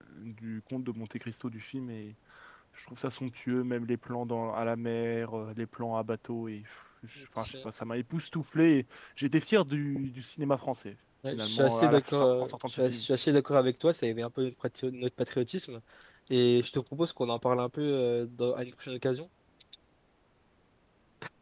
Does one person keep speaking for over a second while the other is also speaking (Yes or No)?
Yes